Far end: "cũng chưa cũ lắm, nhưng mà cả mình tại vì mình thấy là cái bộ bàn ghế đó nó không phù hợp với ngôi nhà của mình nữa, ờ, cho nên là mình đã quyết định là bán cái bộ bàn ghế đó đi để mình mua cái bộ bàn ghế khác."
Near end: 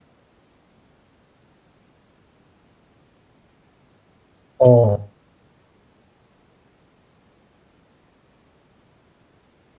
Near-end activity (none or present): present